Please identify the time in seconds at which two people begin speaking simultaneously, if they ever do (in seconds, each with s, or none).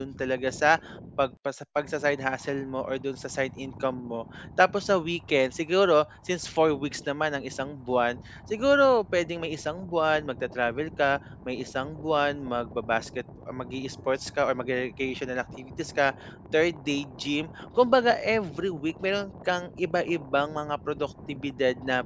none